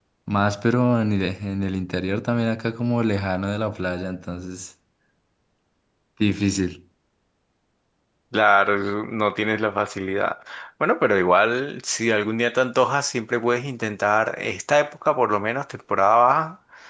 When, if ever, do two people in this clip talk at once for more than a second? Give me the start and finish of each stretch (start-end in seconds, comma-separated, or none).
none